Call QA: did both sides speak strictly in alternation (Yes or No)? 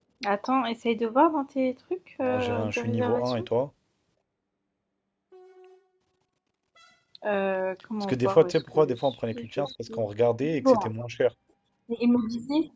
No